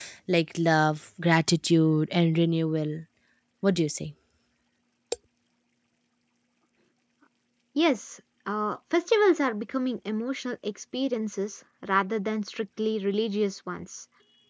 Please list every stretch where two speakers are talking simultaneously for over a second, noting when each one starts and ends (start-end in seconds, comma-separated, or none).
none